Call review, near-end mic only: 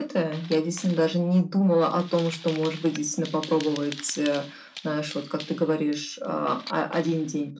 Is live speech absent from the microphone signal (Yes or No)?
Yes